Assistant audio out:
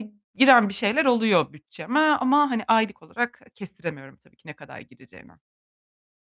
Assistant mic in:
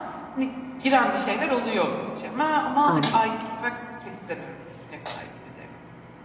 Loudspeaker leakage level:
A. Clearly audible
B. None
A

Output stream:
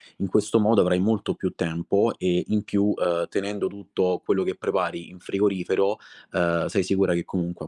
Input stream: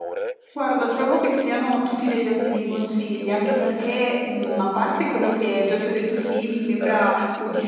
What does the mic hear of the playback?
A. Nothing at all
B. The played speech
B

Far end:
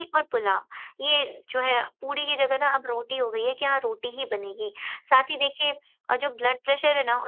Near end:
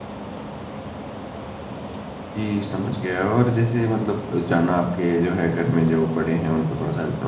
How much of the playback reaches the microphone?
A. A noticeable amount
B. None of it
B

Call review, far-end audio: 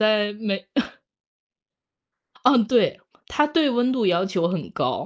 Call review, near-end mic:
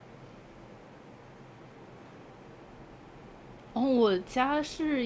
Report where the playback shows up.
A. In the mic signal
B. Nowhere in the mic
B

